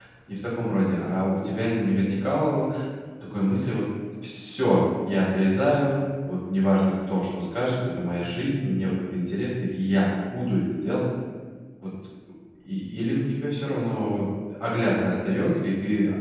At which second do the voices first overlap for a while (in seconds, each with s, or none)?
none